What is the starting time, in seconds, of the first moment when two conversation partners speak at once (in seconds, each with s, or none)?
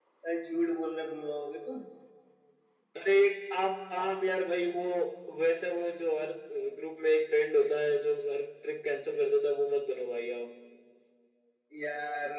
none